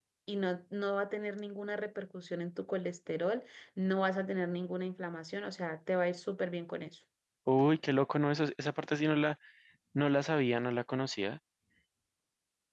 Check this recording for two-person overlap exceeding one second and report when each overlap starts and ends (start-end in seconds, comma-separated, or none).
none